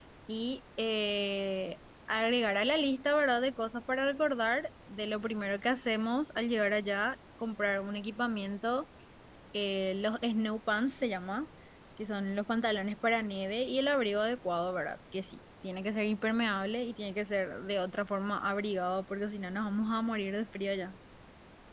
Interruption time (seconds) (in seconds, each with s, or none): none